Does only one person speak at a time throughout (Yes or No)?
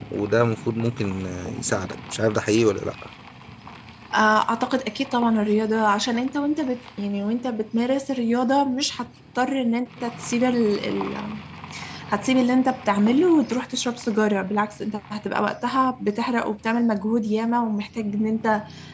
Yes